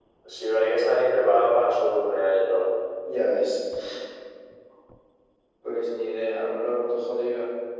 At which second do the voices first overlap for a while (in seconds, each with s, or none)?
none